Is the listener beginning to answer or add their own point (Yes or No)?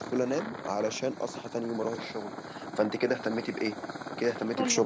No